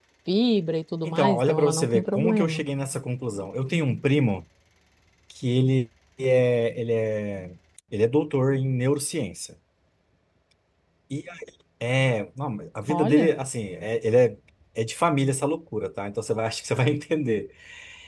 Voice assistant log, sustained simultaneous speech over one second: present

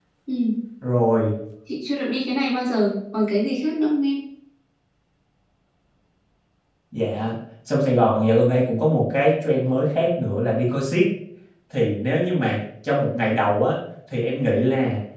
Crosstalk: none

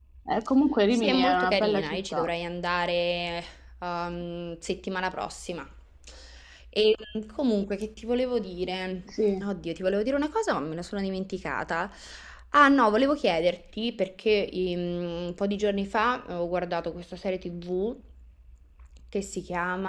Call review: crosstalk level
present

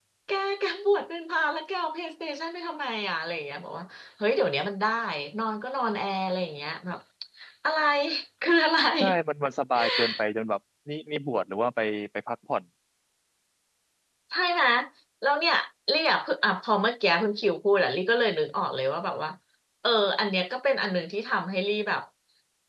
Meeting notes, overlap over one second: none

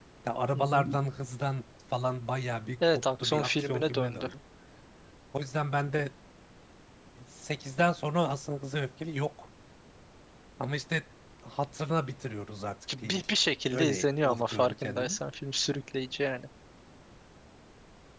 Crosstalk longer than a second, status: present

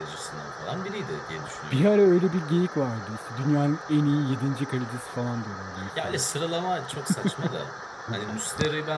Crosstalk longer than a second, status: none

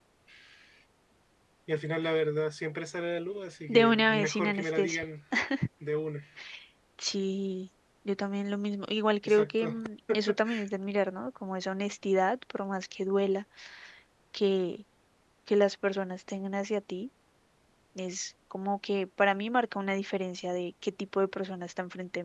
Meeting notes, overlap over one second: present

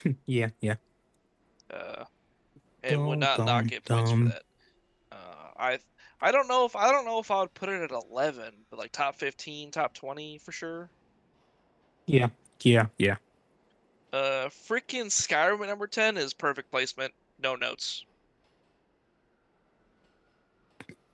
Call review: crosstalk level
present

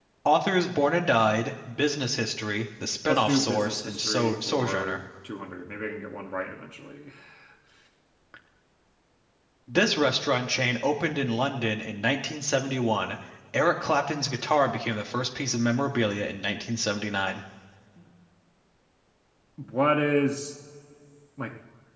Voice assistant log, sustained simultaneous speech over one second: present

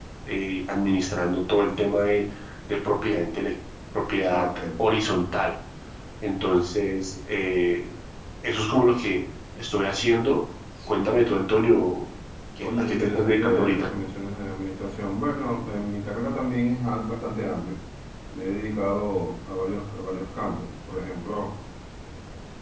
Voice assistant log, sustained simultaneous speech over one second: present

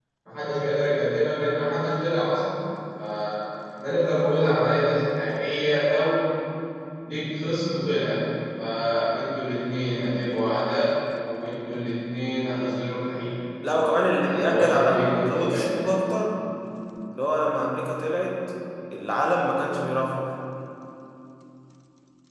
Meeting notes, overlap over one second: present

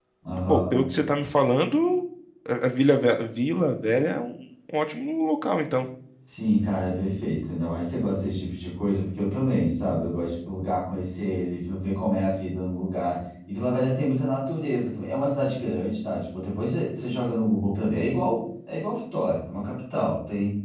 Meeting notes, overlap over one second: none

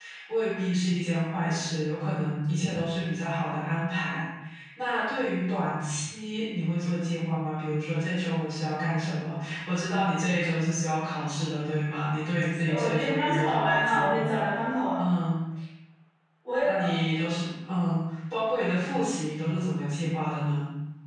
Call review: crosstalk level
present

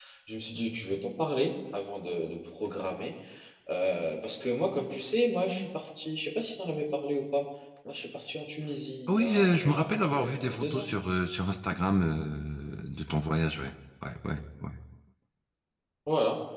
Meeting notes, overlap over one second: present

